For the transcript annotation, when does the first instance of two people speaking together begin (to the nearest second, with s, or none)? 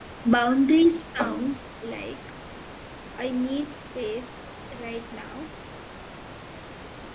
none